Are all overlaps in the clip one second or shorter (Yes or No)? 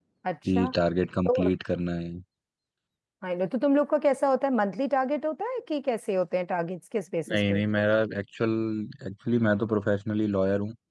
Yes